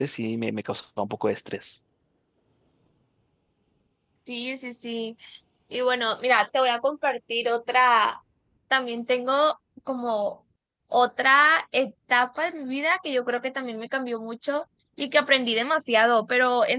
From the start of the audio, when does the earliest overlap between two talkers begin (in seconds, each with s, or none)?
none